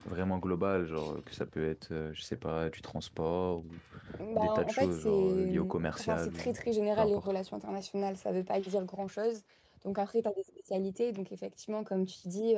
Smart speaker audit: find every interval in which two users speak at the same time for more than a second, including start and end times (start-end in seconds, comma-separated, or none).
4.4-6.6